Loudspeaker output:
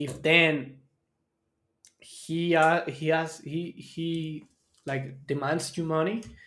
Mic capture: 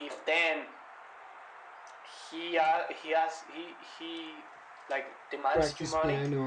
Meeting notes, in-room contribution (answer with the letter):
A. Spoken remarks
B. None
A